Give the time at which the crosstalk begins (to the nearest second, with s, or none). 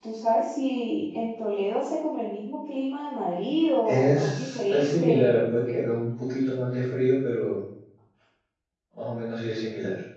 4 s